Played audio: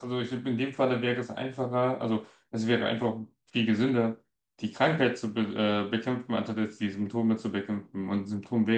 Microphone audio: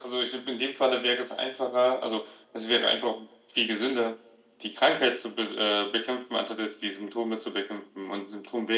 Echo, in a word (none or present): present